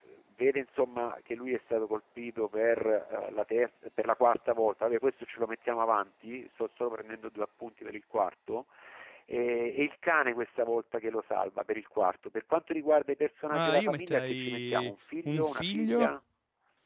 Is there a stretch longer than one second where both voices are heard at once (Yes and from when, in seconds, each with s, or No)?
Yes, from 13.5 s